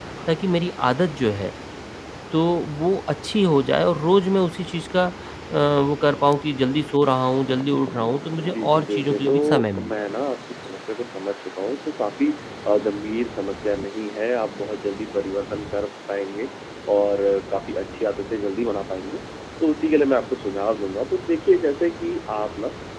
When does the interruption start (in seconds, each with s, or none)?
8.4 s